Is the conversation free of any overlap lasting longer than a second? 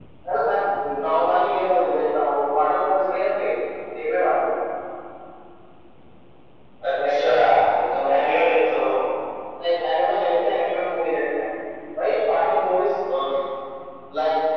Yes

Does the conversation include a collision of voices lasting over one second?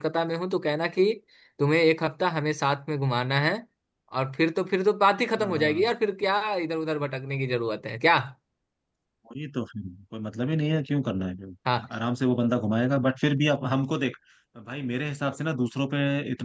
No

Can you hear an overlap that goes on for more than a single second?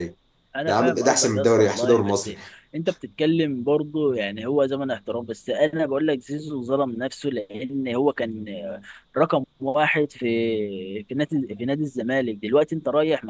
Yes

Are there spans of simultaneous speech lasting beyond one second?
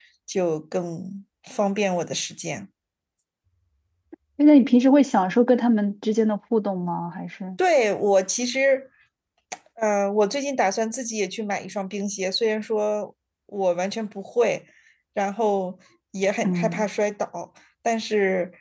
No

